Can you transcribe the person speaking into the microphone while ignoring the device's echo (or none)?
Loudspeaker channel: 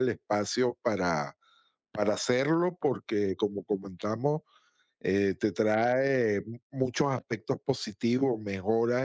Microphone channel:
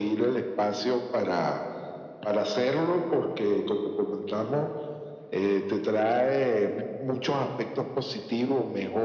none